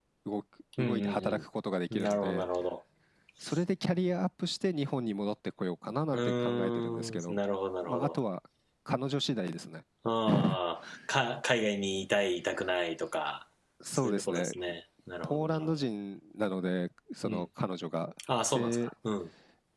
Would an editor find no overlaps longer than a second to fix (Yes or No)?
No